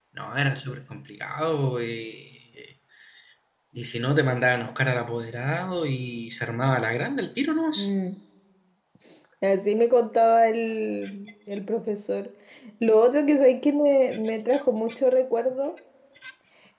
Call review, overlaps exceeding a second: none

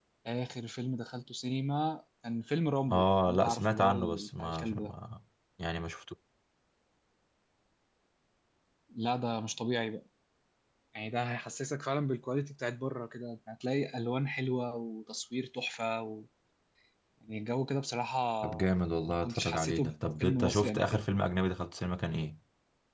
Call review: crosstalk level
present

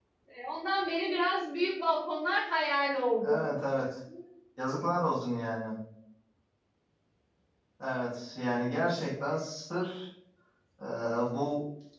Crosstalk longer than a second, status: none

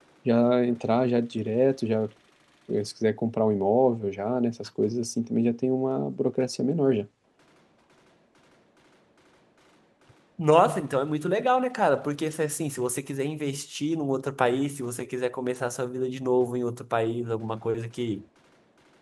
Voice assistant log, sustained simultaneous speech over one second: none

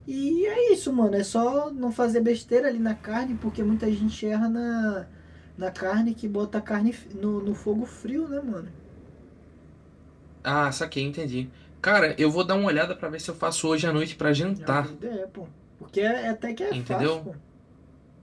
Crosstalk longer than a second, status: none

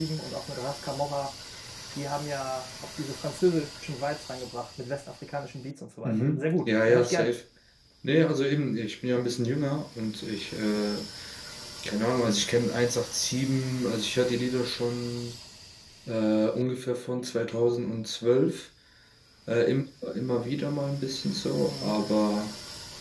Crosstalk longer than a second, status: present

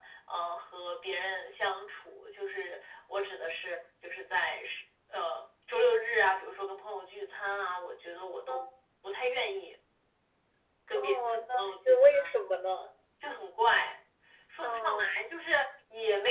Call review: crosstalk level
present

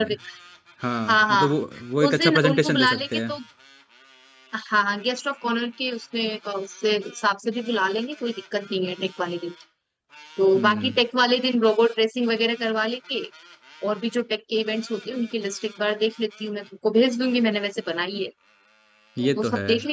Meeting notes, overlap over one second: present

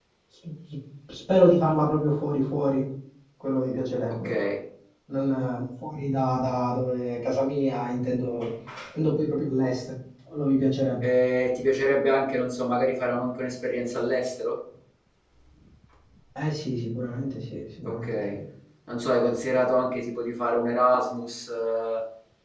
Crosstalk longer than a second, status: none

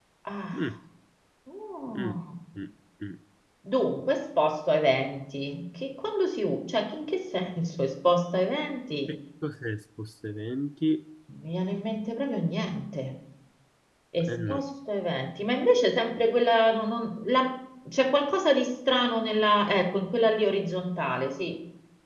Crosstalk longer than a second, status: none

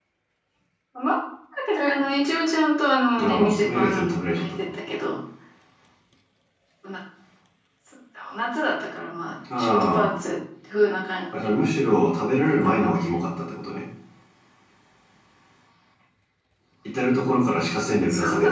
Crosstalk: present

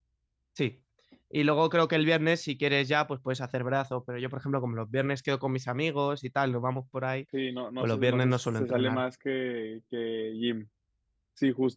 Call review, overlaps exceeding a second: present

